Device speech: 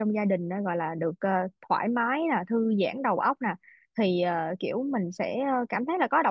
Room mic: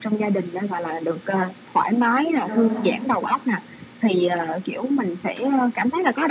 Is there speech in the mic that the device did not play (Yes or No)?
Yes